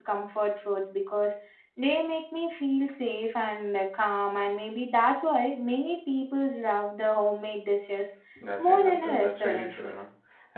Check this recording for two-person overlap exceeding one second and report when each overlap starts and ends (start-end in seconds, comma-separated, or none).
8.6-9.9